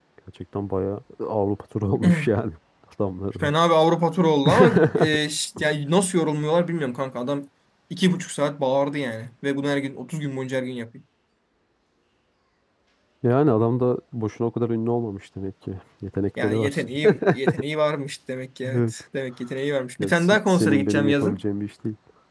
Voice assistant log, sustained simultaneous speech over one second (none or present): present